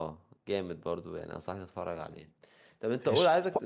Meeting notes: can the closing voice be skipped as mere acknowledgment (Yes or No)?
Yes